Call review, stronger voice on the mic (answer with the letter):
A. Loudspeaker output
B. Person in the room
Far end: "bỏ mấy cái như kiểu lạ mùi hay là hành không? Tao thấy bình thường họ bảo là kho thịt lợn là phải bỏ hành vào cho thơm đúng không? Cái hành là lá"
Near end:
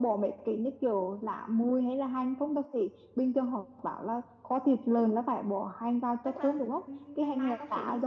A